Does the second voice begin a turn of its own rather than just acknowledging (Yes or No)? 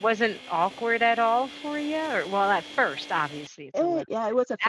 Yes